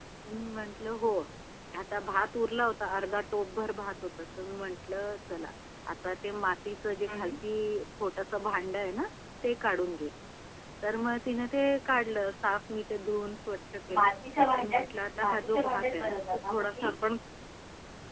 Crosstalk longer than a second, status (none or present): present